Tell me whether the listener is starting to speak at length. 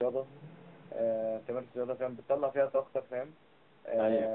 No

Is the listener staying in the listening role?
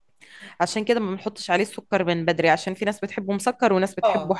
No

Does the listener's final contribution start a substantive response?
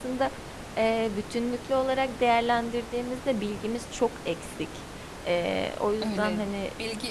Yes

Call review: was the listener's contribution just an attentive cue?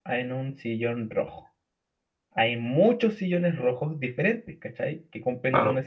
Yes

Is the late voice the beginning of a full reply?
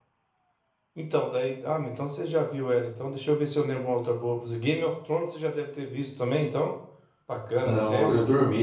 Yes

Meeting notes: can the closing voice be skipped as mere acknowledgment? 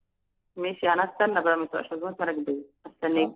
No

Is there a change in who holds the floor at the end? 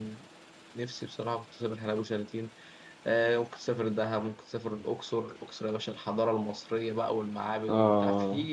No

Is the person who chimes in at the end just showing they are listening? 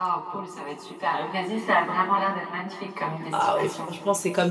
No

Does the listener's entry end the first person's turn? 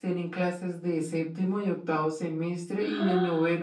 No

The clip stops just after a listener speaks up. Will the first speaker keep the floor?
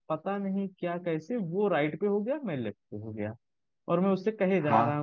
Yes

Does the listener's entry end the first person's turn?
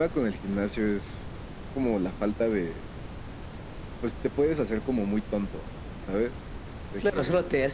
Yes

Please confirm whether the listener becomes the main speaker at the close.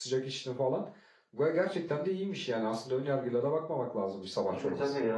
Yes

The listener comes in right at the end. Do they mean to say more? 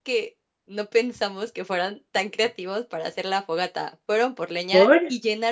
No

